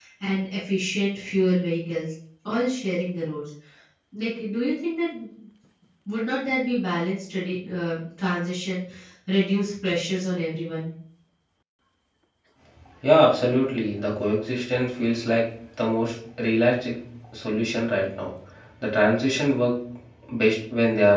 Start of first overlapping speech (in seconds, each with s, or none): none